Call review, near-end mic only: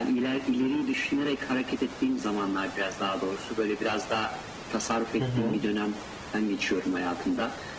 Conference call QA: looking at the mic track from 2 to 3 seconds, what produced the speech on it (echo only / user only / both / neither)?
echo only